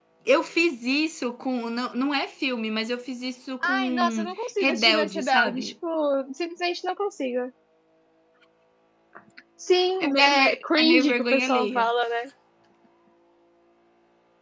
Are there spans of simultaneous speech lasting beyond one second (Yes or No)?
Yes